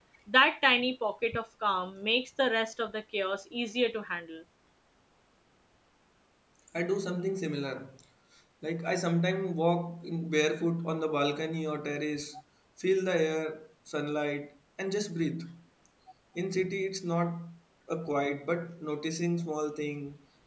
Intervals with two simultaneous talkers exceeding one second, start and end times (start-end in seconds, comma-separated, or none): none